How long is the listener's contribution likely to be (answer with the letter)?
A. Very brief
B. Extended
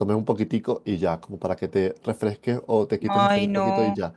A